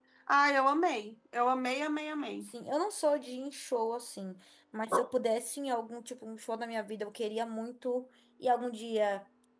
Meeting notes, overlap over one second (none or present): none